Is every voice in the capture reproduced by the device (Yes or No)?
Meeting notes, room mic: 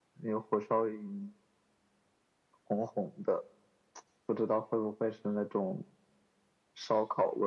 Yes